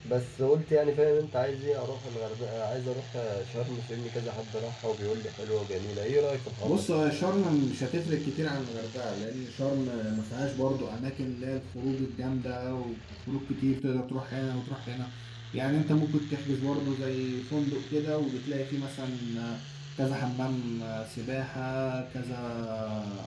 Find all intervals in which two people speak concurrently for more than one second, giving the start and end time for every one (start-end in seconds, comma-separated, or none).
none